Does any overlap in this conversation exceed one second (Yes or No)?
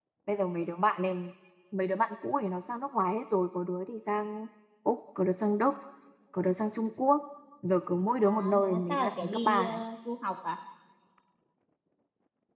Yes